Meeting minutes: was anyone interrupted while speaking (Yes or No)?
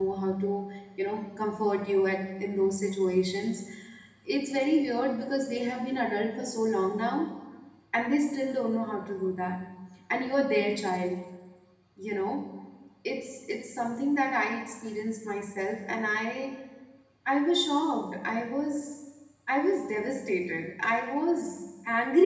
No